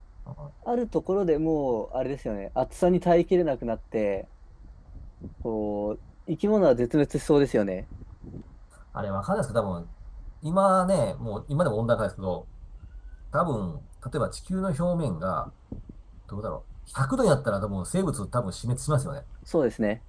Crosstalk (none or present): none